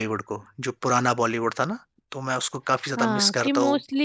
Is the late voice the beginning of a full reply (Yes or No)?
Yes